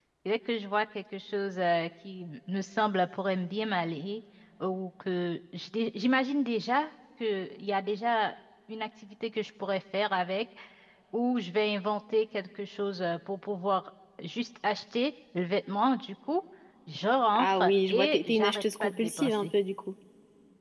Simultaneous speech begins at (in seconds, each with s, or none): 17.4 s